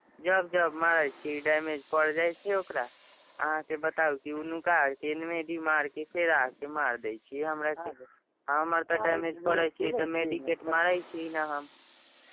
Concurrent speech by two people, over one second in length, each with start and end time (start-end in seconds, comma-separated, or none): 8.9-11.0